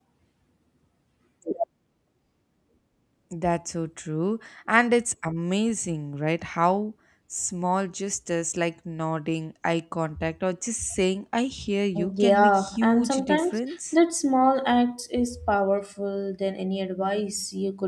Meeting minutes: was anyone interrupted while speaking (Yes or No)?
Yes